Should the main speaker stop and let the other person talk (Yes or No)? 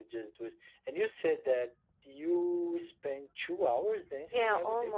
Yes